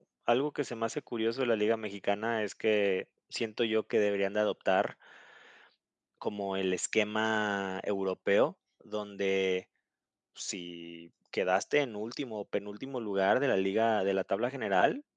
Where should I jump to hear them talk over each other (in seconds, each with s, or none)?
none